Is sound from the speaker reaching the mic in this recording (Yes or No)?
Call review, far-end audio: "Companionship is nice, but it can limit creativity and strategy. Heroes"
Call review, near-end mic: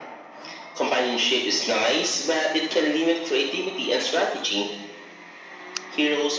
Yes